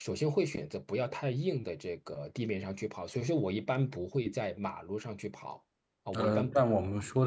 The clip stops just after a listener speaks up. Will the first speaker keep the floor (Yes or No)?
No